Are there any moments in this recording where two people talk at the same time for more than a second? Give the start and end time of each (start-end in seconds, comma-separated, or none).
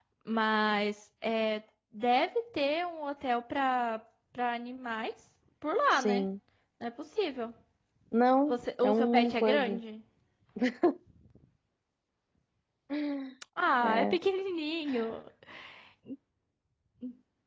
8.5-9.8